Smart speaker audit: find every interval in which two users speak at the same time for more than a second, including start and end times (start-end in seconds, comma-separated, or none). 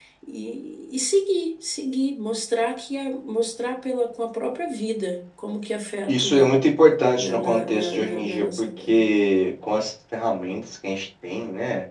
7.2-9.1